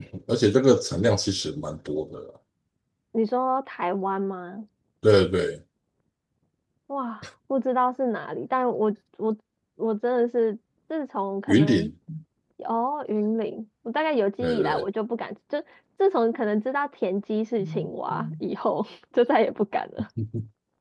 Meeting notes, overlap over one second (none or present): none